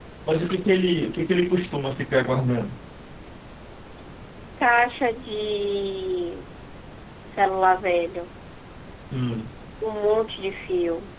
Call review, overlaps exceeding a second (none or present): none